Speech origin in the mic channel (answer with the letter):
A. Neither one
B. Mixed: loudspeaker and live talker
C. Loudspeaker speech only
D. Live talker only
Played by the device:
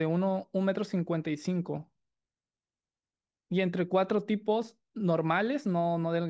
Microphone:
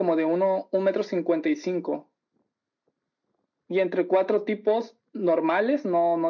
C